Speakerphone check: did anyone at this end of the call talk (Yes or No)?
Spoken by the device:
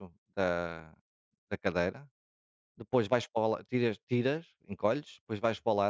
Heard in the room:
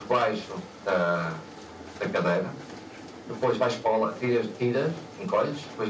No